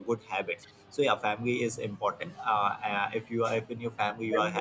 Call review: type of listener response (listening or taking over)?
taking over